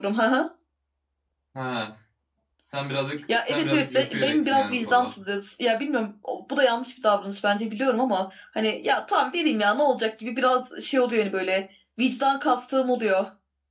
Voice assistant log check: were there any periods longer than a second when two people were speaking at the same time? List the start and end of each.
3.5-5.1

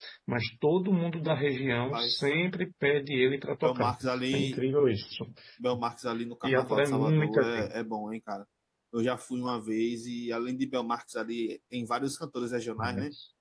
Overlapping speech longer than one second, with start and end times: 6.5-7.7

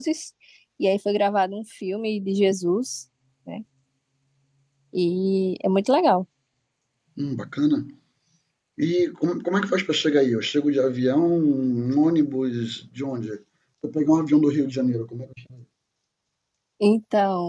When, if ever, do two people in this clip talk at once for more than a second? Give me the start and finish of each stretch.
none

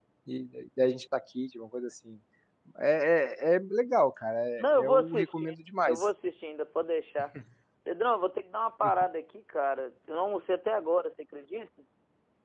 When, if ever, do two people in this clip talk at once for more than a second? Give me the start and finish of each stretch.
4.6-6.0

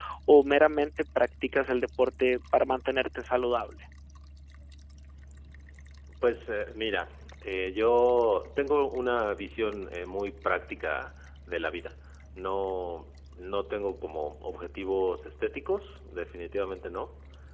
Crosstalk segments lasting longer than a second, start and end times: none

